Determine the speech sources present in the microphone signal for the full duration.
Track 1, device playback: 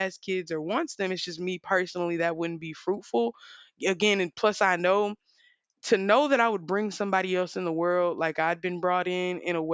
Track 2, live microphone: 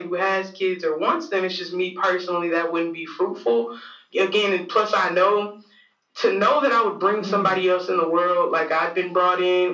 both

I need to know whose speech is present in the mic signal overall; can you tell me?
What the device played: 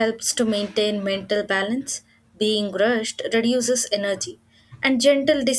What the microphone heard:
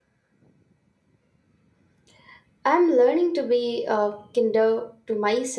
user only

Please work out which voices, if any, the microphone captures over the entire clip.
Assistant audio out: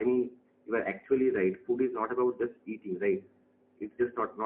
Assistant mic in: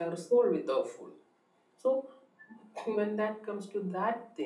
user only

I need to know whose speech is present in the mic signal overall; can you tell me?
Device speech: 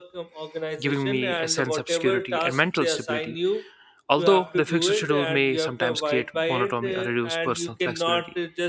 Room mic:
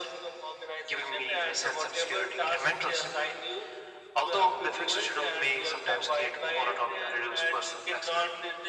echo only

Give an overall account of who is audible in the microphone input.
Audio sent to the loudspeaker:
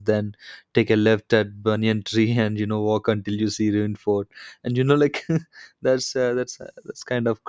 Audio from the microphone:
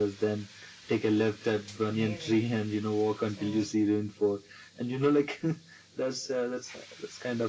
both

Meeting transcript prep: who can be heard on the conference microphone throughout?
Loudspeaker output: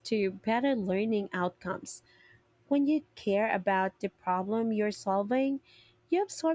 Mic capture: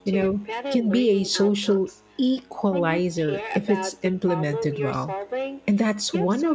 both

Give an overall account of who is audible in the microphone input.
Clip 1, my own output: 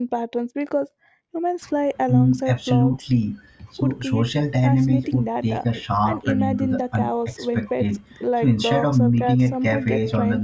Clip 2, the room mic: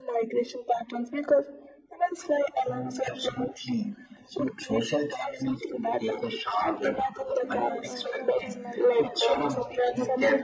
both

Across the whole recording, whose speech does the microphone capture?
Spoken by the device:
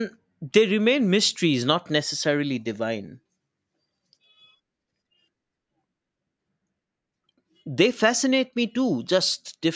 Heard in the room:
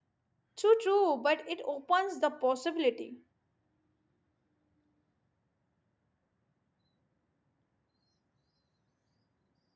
user only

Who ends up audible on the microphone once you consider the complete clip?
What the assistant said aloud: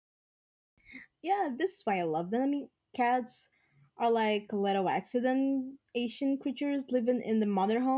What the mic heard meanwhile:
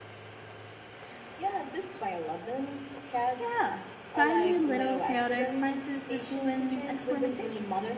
both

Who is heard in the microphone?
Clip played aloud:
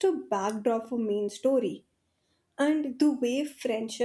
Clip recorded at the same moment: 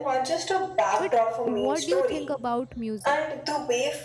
both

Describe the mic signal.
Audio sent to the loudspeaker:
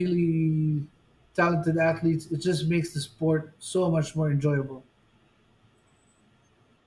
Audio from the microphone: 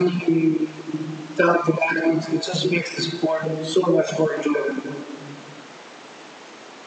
echo only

